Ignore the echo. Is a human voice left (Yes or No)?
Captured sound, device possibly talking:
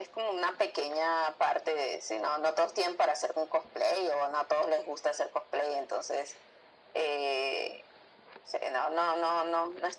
No